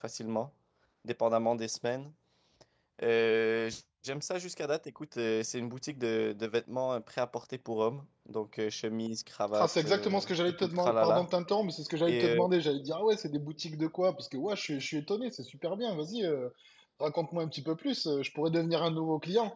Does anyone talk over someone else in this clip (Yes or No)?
Yes